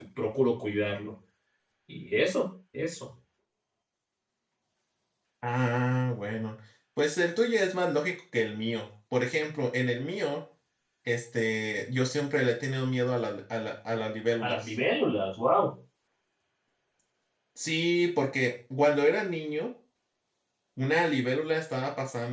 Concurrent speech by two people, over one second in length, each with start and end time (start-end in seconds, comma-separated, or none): none